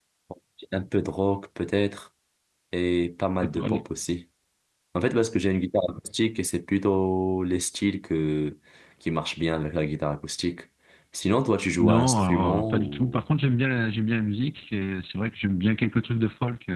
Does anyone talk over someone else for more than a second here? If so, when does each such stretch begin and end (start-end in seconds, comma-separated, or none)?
11.8-13.2